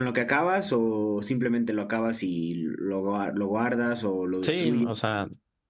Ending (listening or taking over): taking over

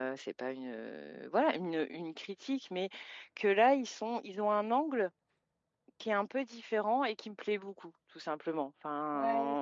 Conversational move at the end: listening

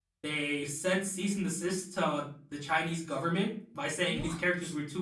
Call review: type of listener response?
listening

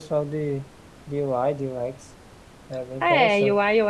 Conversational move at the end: taking over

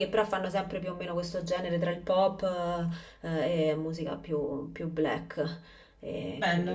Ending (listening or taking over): taking over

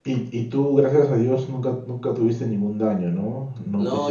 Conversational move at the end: taking over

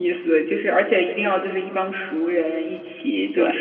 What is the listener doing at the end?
listening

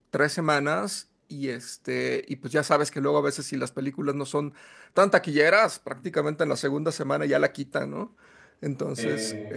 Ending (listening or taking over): listening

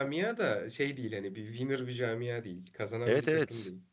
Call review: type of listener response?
taking over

